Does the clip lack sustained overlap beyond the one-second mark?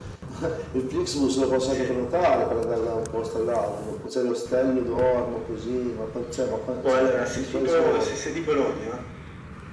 No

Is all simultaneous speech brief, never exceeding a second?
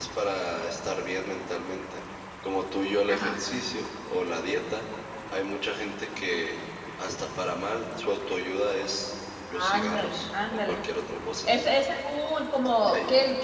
No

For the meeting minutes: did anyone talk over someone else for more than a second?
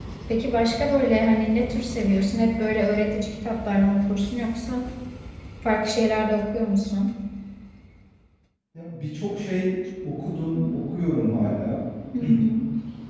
No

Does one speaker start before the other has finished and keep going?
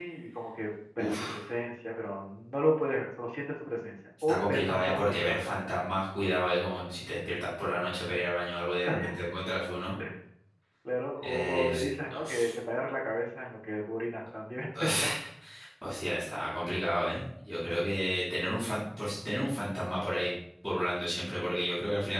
Yes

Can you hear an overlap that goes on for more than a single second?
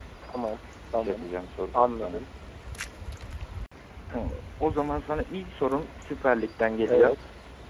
No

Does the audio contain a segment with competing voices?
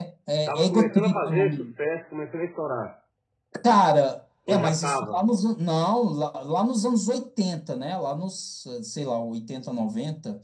Yes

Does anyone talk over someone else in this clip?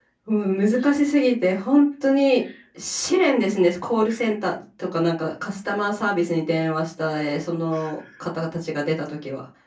No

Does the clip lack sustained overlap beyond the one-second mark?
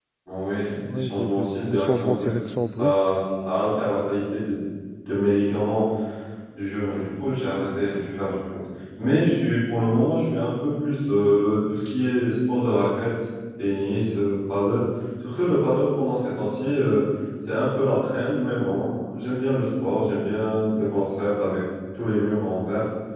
No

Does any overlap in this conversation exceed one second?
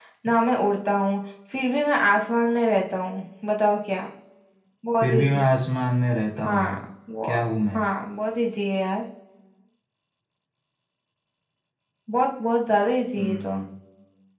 No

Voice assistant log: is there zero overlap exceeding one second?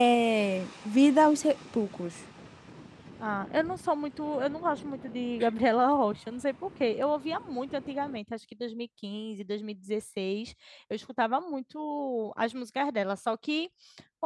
Yes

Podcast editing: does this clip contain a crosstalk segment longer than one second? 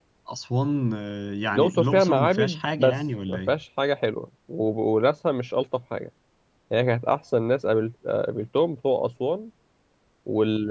Yes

